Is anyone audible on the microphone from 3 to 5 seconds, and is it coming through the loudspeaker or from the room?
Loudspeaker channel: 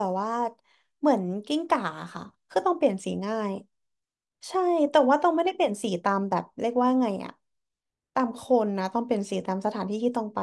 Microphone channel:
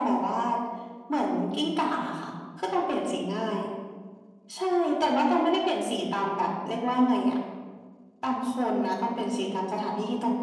echo only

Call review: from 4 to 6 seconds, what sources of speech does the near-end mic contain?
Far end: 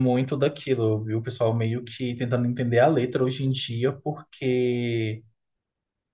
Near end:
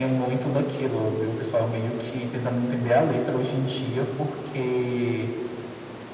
echo only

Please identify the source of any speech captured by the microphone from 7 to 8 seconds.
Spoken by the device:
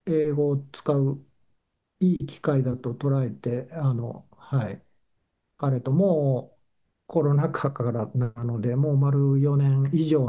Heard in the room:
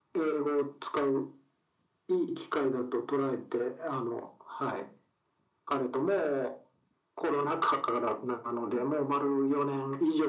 echo only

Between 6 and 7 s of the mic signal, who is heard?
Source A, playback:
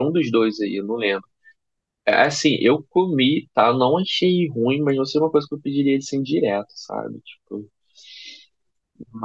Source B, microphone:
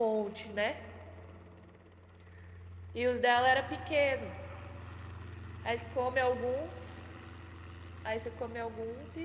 user only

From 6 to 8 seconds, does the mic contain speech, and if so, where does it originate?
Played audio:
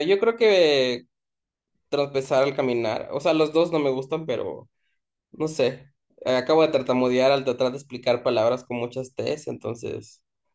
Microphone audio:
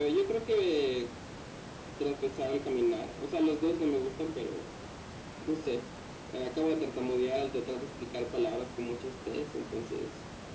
echo only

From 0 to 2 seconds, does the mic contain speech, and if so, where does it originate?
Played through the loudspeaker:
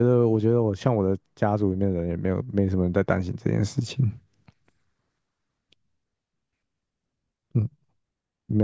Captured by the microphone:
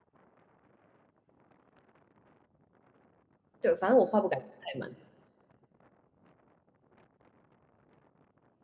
neither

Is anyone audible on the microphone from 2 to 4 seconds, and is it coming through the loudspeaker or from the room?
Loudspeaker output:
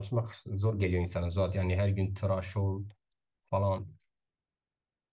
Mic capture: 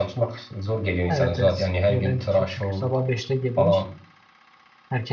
both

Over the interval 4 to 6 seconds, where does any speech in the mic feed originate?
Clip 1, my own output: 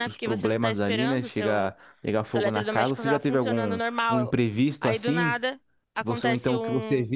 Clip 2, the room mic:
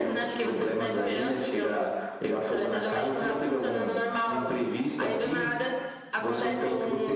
echo only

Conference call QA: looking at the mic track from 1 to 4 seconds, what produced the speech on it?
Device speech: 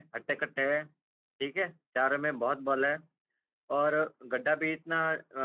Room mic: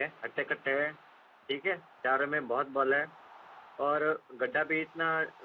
echo only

